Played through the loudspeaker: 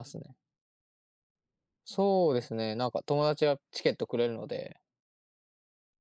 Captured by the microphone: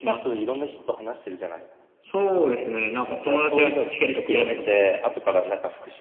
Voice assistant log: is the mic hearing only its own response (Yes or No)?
No